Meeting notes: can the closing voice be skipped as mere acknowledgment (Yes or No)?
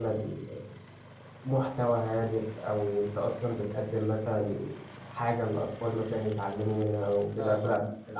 Yes